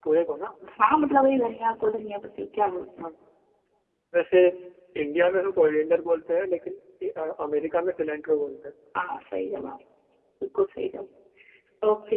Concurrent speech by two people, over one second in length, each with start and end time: none

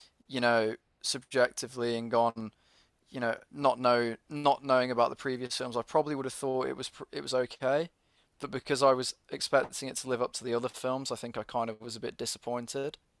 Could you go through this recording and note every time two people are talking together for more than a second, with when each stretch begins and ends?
none

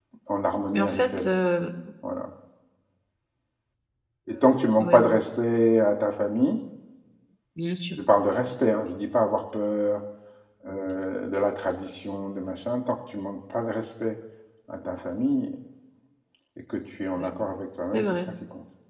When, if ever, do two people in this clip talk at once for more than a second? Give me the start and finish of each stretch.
none

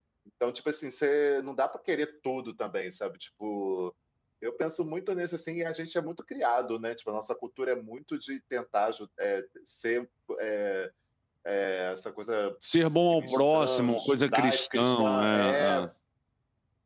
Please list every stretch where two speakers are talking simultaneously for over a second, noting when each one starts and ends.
13.1-15.8

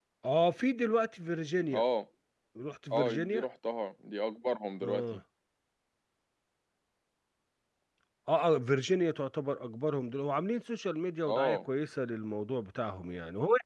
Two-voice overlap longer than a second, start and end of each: none

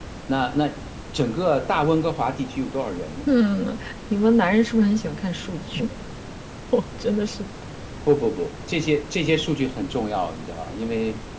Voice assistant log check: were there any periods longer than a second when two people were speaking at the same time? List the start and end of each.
none

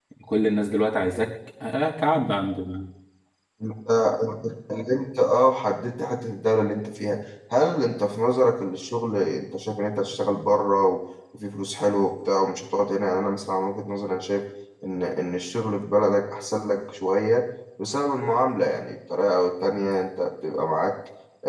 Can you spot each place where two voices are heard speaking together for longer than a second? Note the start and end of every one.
none

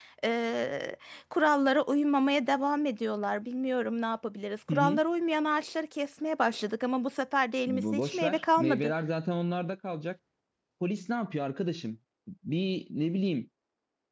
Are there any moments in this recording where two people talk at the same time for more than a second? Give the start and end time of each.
7.7-8.9

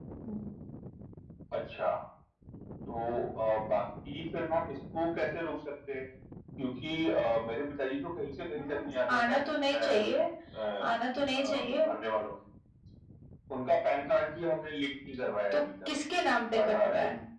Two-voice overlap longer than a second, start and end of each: 8.6-10.1

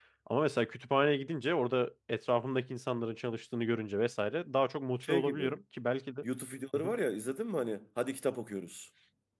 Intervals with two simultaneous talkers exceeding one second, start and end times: none

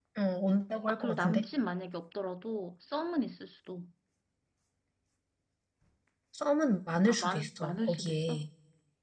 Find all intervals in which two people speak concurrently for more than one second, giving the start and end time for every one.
7.1-8.4

